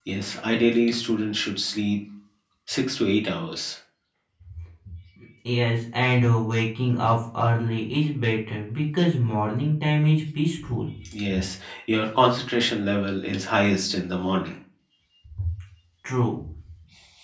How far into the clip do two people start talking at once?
none

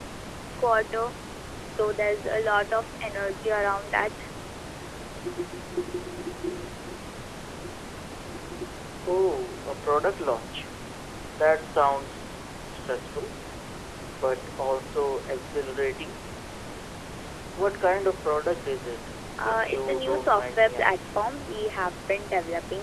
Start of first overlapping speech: 19.4 s

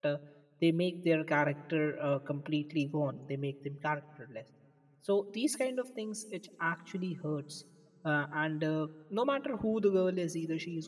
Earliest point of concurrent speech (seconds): none

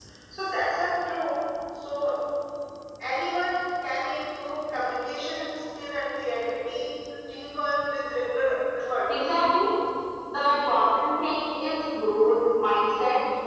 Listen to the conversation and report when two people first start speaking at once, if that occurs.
none

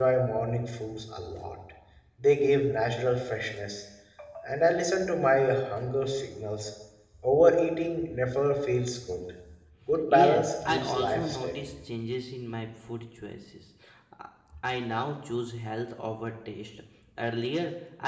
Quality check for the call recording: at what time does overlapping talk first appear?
10.1 s

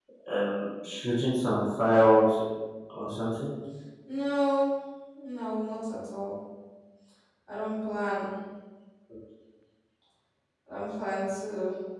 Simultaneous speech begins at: none

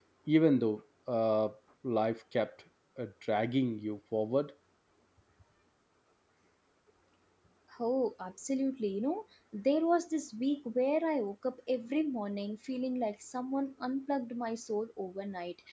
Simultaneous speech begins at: none

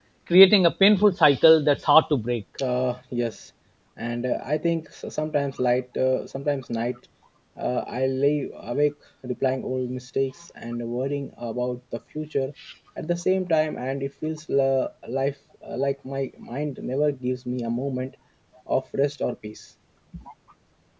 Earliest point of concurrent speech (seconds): none

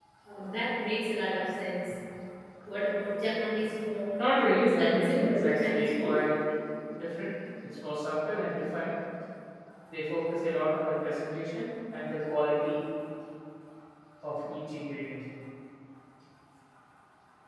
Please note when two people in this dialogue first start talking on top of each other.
4.6 s

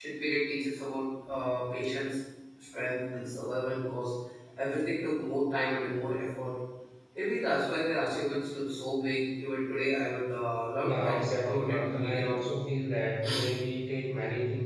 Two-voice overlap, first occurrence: 10.8 s

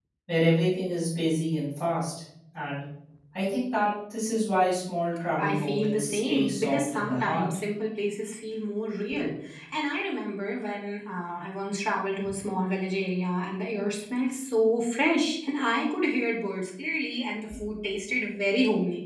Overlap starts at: 5.4 s

